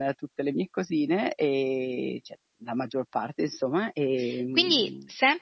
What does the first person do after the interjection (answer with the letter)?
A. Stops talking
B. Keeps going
A